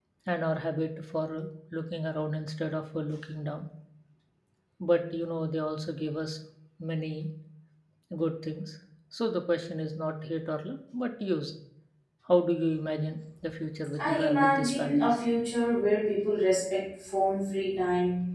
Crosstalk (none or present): present